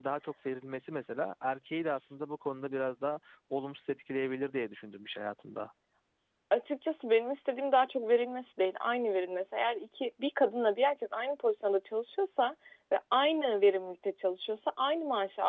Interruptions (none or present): none